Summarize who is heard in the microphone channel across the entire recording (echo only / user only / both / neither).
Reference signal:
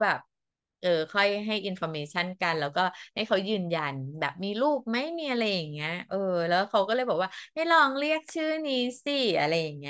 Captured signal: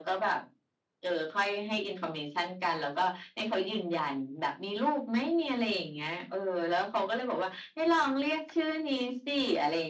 echo only